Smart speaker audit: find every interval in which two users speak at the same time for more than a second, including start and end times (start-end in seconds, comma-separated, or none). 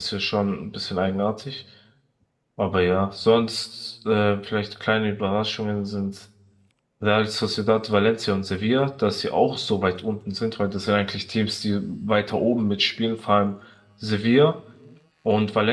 none